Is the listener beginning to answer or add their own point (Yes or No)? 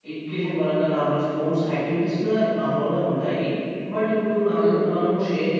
No